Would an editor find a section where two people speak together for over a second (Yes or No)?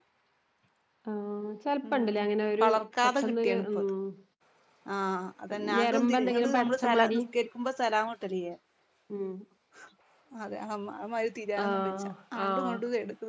Yes